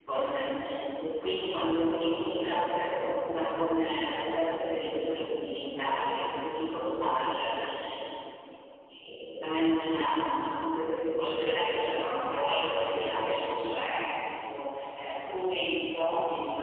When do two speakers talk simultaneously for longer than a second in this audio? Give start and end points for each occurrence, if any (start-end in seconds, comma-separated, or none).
11.2-13.5